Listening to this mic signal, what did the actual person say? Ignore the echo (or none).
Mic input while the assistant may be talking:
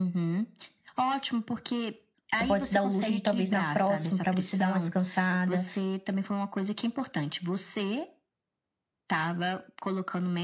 você pode se dar o luxo de talvez na próxima, pra você dar uma descansada